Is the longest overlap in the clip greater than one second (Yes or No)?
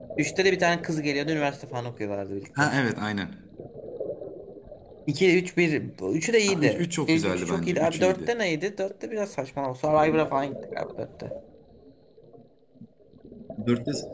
Yes